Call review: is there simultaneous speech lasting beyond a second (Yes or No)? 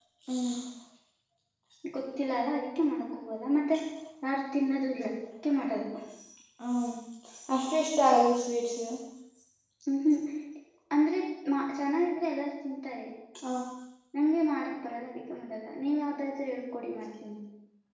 No